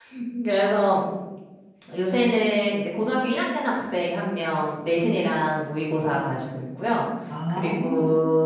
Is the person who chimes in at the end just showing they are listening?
Yes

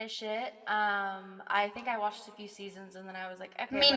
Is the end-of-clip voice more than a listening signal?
No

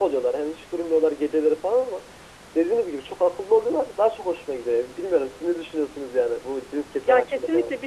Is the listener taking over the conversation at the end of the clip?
Yes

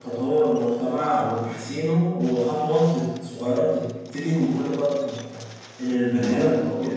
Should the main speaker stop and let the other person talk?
No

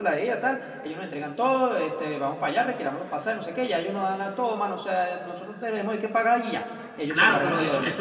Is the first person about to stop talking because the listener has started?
Yes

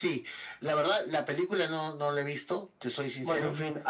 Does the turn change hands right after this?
Yes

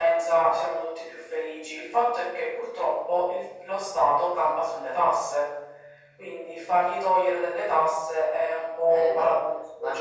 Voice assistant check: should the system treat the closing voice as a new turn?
Yes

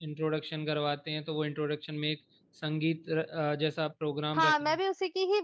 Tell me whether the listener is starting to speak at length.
Yes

